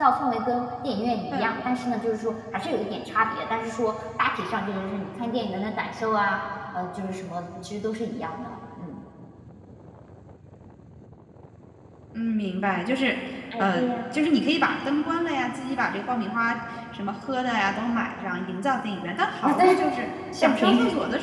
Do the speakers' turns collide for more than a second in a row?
No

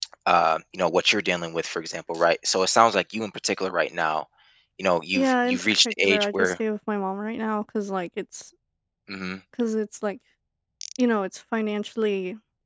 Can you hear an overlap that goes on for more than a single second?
Yes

